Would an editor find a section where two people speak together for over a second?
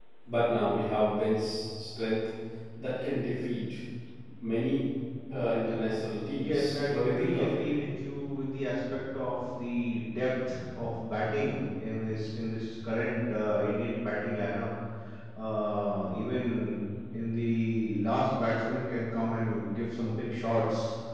Yes, from 6.4 s

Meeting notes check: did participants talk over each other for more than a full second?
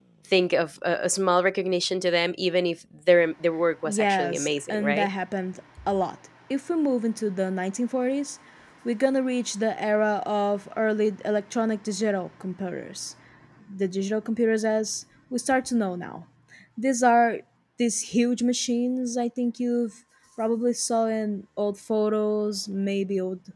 Yes, from 3.8 s

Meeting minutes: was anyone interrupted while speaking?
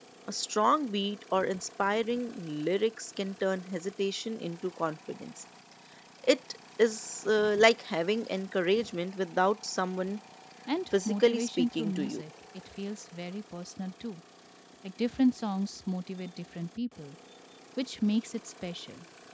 Yes, from 10.9 s

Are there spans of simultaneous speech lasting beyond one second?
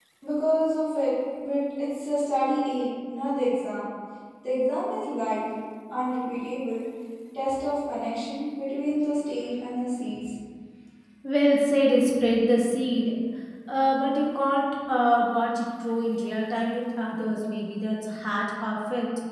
No

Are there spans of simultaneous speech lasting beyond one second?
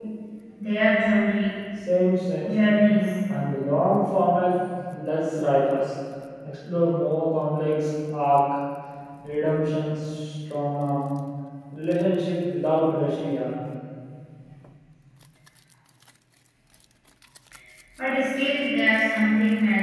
No

